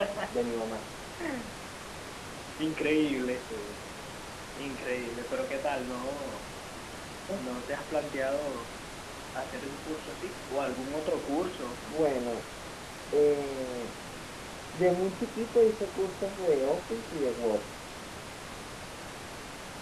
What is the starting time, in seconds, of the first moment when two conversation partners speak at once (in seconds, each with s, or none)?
none